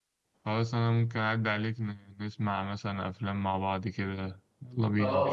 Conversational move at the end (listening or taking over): taking over